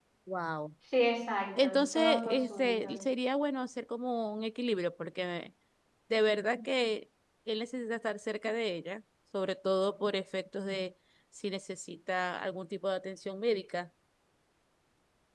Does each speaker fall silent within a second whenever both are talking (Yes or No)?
No